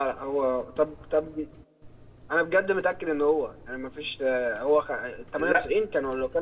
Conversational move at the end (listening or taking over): listening